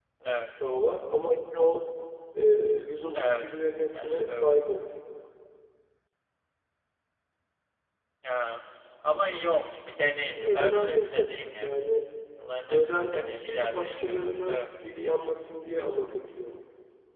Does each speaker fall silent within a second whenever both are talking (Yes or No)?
No